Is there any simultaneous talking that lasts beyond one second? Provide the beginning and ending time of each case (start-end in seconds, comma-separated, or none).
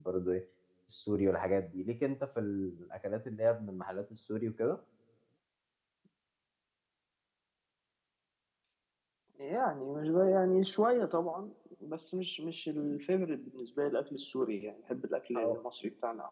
none